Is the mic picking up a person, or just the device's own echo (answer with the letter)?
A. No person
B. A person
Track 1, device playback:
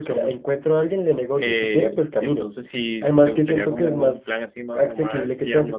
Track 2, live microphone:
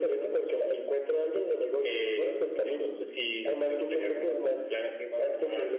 A